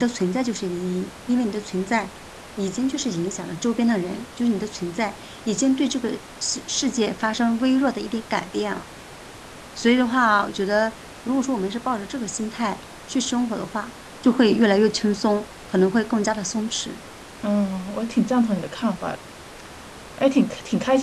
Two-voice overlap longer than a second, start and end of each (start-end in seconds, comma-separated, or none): none